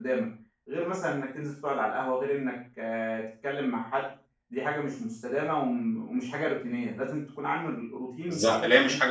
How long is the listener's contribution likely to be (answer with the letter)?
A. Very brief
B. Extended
B